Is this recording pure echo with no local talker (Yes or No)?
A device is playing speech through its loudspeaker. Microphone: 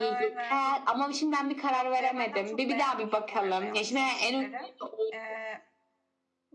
No